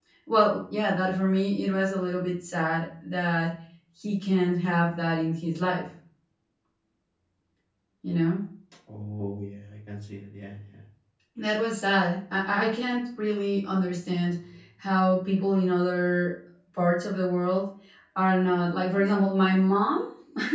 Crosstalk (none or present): none